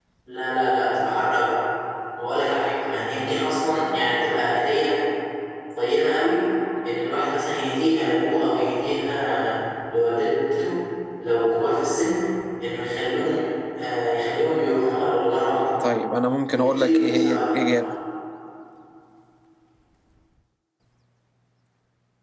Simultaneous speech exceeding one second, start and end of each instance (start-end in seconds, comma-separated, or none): 16.5-17.8